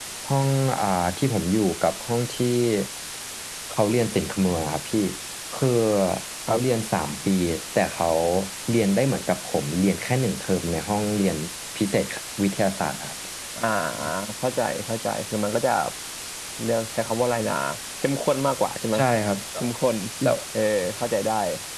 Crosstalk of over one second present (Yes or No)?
No